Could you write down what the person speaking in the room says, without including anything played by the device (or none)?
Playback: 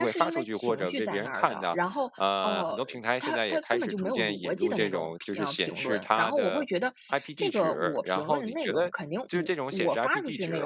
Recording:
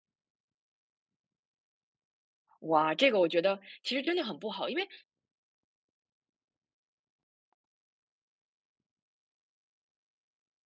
哇，这个我觉得其实真的很不好，因为